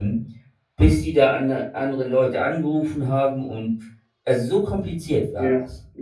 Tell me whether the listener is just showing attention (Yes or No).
No